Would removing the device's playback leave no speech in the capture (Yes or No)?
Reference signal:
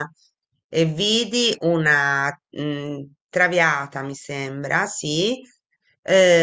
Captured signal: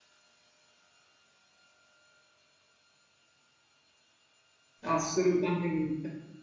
No